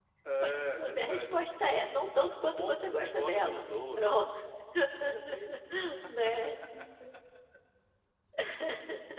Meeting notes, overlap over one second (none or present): present